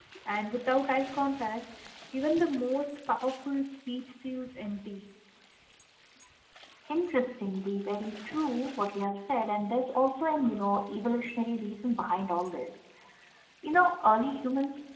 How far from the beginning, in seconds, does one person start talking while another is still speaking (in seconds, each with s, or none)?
none